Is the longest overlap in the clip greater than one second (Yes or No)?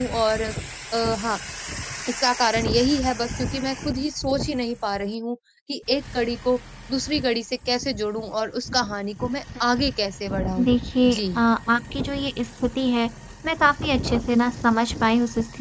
No